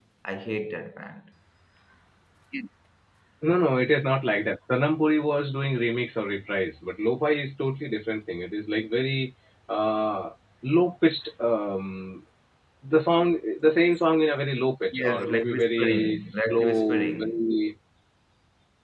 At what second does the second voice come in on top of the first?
14.9 s

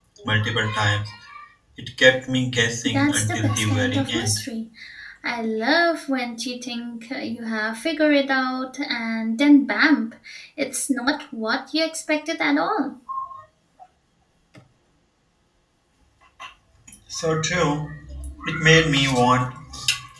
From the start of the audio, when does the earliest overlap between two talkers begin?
2.8 s

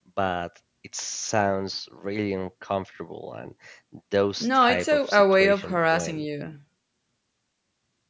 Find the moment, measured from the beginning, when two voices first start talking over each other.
4.4 s

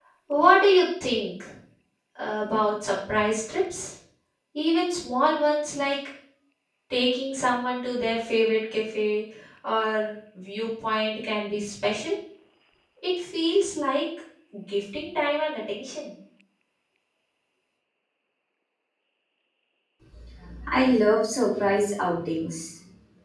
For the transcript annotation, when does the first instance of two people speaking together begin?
none

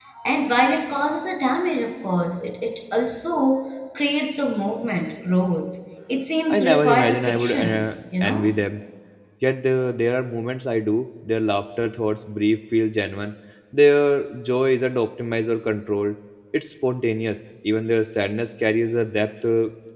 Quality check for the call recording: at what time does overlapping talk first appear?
6.5 s

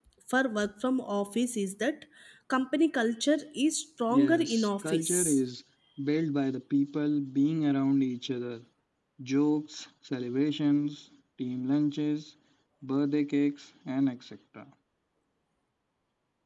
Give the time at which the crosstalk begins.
4.1 s

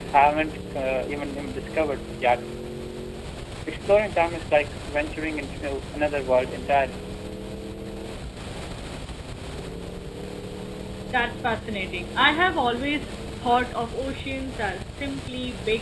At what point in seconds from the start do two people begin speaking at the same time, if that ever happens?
none

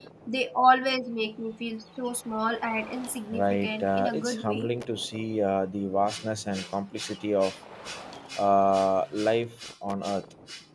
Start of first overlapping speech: 3.3 s

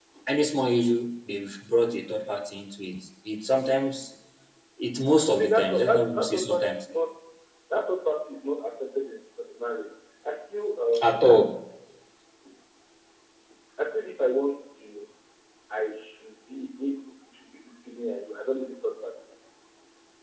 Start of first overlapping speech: 5.3 s

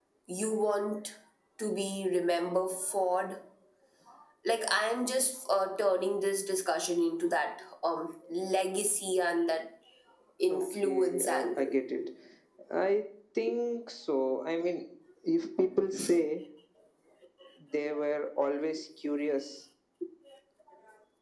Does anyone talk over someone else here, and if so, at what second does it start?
10.6 s

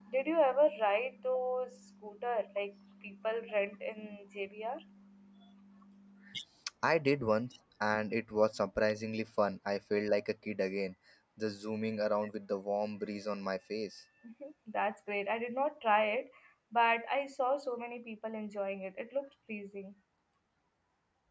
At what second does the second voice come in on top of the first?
none

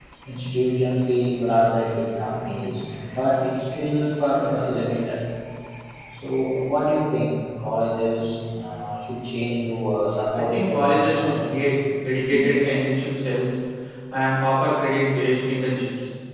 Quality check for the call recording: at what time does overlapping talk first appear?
10.3 s

